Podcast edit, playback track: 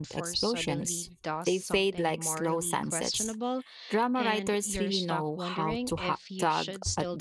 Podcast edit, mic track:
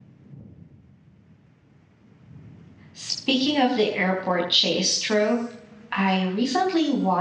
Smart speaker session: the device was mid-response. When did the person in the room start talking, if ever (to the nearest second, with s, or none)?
3 s